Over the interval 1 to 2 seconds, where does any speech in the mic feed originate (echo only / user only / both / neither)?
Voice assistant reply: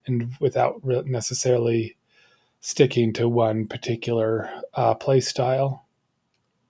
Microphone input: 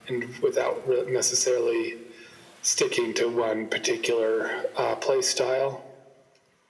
echo only